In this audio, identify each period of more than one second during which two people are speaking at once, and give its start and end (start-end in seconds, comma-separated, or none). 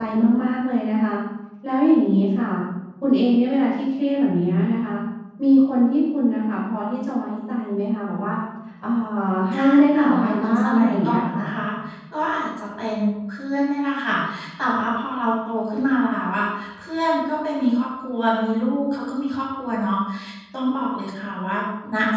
9.5-11.4